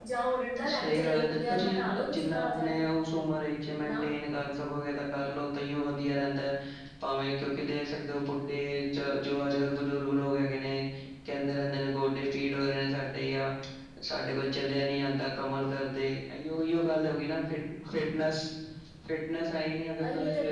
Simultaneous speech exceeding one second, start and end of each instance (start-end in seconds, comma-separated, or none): 0.7-2.7